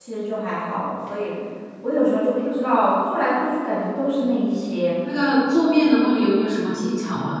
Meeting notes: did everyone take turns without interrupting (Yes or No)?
Yes